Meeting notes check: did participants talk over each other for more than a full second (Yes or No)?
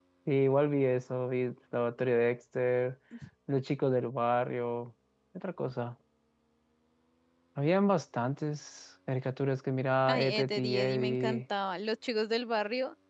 Yes